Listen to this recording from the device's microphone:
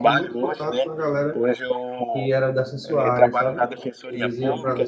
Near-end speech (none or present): present